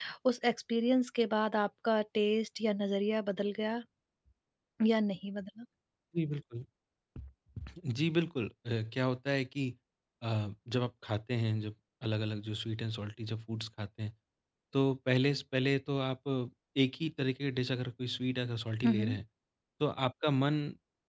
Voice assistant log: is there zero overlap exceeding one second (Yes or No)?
Yes